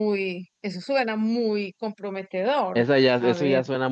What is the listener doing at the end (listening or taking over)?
taking over